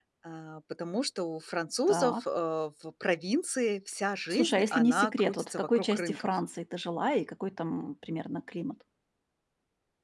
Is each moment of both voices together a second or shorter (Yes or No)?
No